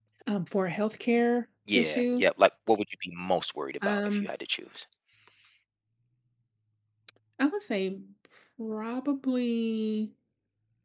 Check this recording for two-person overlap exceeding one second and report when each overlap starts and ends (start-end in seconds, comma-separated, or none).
none